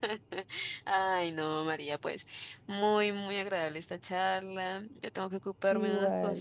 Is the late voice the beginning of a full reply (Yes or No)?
No